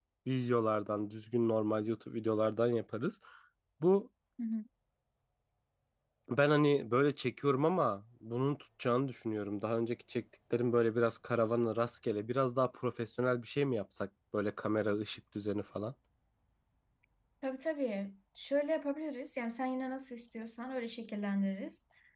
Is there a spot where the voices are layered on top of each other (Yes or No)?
No